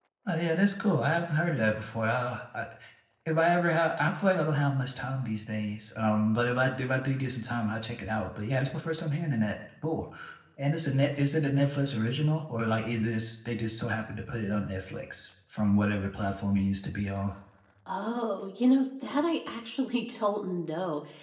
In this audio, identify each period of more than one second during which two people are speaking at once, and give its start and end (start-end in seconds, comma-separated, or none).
none